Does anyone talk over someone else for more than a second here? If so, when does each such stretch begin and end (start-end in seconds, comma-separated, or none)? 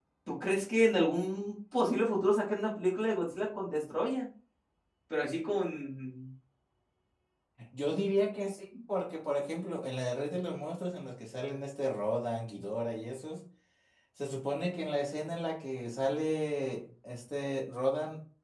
none